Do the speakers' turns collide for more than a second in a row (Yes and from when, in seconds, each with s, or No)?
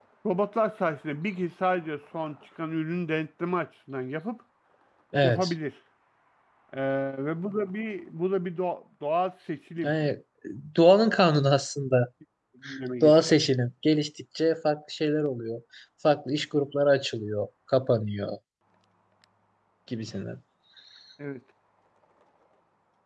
No